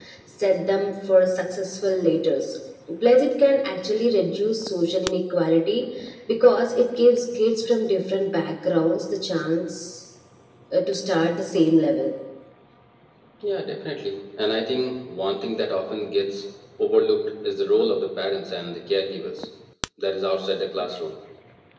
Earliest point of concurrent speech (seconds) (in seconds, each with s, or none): none